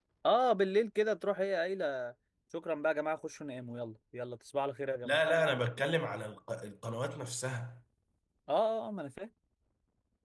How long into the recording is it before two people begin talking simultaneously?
none

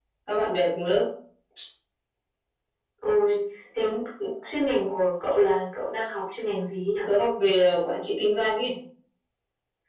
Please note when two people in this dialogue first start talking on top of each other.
none

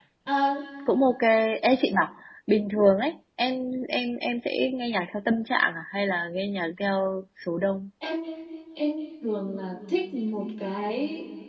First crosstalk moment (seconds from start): none

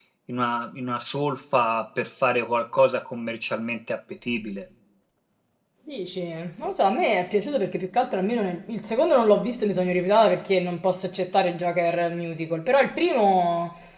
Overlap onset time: none

